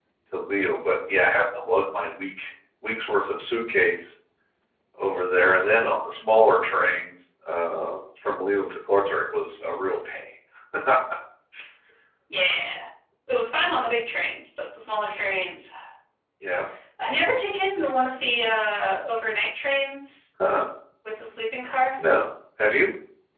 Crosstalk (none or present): none